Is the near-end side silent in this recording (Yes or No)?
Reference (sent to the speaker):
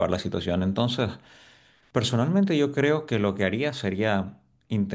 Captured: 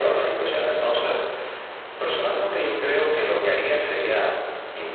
Yes